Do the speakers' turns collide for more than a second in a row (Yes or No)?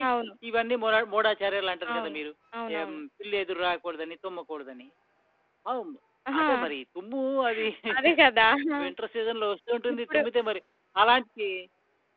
No